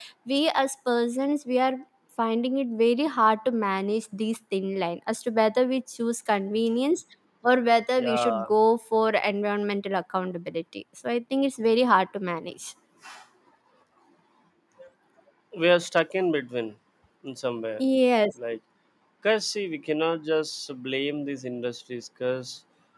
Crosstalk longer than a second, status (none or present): none